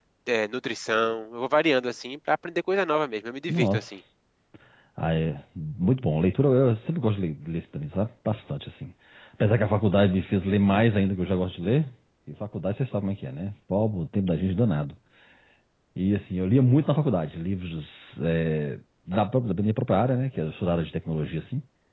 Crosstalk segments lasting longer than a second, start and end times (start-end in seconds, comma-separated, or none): none